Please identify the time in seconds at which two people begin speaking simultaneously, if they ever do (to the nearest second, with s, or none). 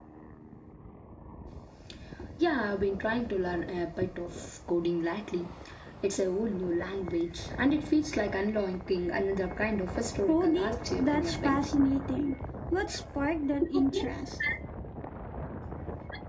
10 s